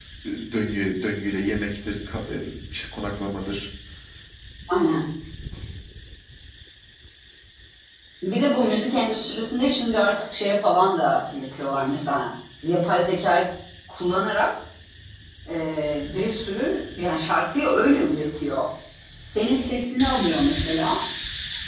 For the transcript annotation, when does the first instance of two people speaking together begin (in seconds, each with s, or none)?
none